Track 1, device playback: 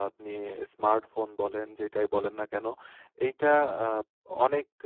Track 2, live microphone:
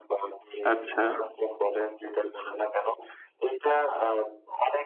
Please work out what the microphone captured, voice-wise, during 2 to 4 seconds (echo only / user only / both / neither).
echo only